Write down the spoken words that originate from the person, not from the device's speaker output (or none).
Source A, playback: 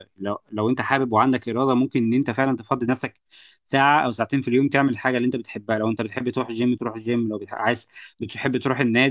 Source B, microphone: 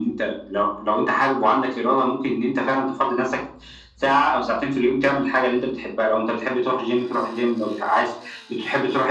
none